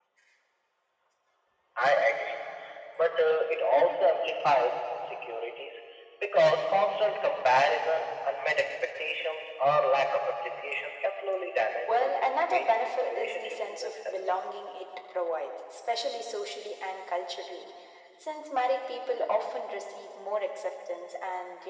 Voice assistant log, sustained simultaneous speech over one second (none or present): present